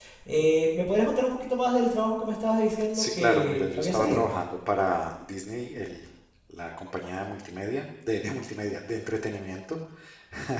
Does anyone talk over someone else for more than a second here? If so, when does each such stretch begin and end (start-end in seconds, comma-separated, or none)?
2.9-4.4